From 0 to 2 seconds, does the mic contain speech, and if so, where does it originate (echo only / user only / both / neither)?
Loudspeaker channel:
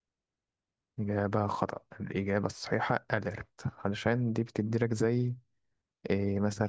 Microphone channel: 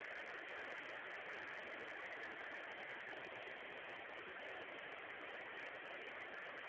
neither